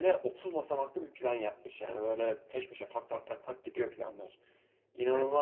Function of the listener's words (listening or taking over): taking over